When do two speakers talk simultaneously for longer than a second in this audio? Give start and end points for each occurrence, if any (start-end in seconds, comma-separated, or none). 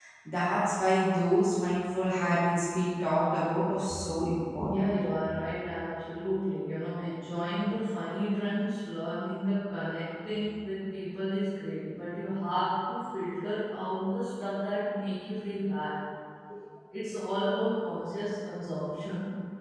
none